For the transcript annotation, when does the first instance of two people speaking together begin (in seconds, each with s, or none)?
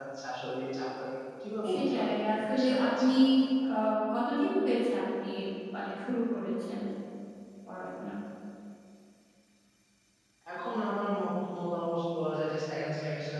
1.6 s